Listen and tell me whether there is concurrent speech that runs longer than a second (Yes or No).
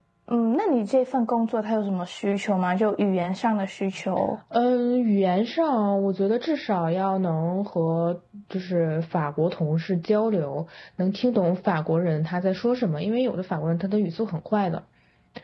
No